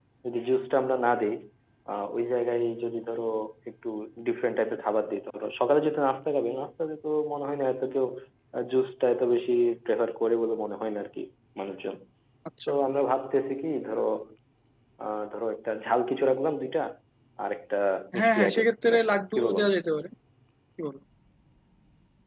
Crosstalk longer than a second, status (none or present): present